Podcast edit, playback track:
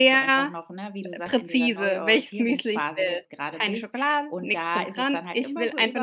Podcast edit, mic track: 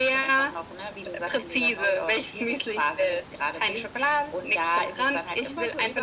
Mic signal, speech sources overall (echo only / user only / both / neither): echo only